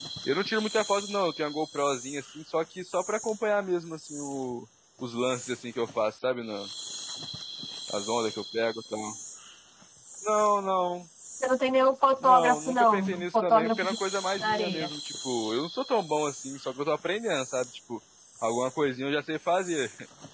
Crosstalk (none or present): present